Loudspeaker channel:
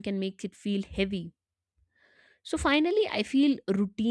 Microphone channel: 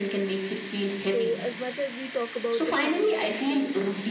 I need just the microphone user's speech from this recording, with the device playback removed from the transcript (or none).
so as much as we talk about the fact that um,